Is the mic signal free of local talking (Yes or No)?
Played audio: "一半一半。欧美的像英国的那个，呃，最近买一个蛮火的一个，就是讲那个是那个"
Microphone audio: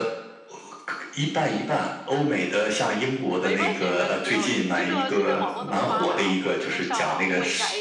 No